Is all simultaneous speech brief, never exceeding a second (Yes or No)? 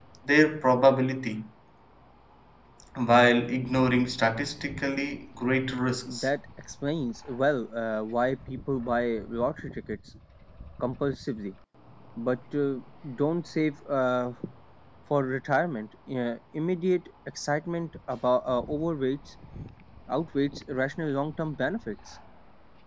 Yes